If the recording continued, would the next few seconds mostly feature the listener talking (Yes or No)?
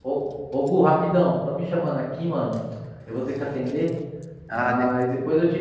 No